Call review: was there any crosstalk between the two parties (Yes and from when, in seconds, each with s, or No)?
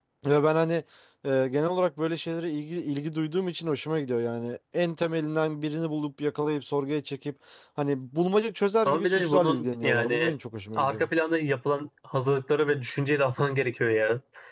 Yes, from 8.8 s